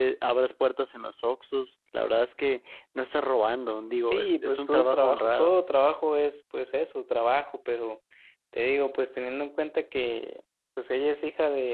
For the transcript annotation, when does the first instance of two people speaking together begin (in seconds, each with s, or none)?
4.1 s